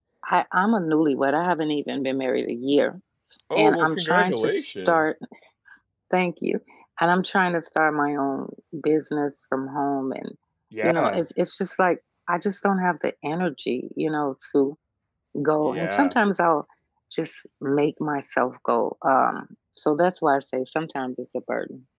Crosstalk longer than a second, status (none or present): present